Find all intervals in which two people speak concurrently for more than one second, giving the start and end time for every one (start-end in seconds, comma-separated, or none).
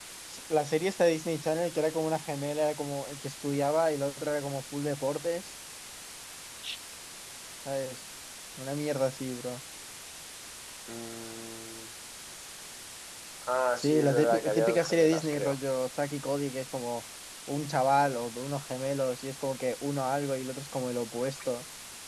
13.8-15.6